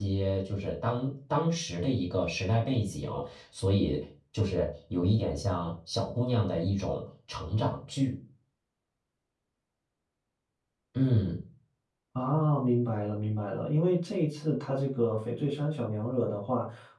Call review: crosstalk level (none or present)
none